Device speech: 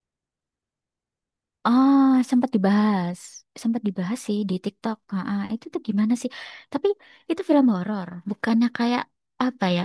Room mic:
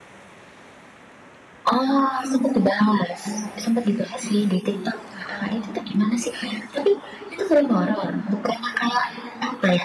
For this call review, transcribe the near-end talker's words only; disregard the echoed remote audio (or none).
none